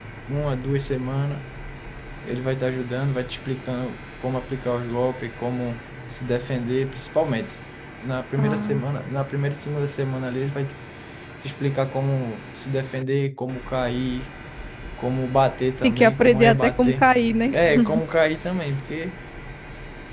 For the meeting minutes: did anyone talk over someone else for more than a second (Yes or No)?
Yes